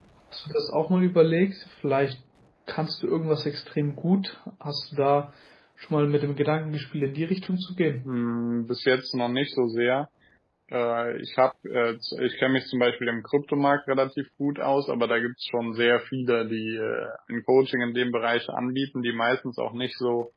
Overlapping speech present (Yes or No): No